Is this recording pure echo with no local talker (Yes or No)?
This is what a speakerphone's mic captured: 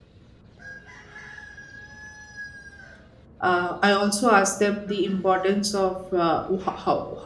No